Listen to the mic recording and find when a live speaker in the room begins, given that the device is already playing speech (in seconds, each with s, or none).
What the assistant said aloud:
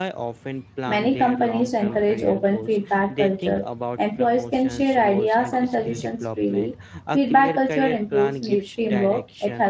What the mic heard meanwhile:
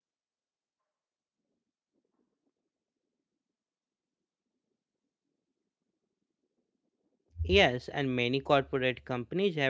7.4 s